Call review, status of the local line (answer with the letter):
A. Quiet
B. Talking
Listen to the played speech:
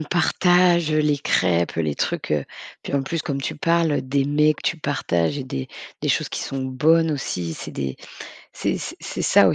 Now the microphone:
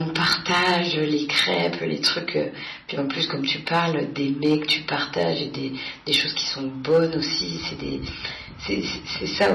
A